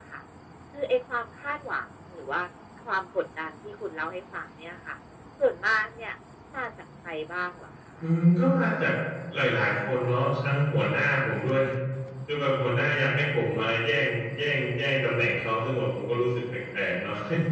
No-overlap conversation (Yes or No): Yes